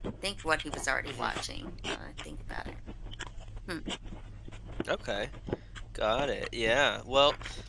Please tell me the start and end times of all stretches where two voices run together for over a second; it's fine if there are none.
none

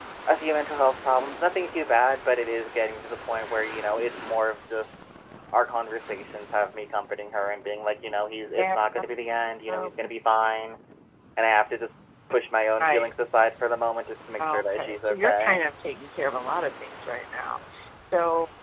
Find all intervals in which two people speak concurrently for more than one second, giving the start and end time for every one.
14.4-15.6

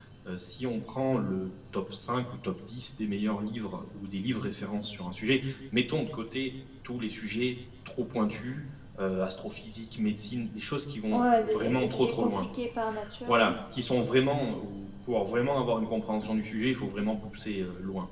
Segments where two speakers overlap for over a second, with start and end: 11.1-12.5

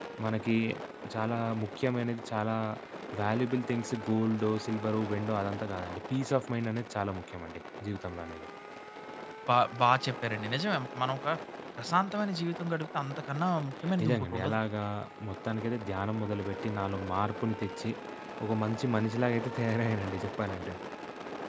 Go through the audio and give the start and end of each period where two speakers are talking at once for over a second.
none

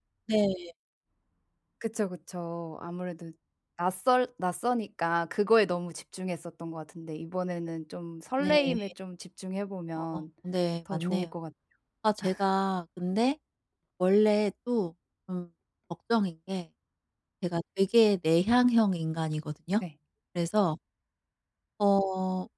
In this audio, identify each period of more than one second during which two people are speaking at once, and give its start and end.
none

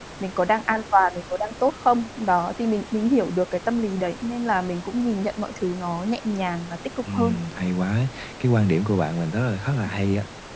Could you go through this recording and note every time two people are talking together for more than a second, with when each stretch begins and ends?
none

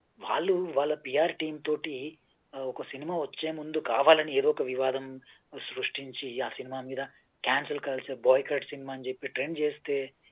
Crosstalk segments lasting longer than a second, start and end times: none

